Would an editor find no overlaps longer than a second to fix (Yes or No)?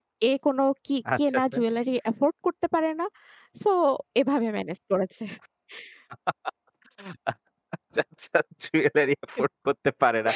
Yes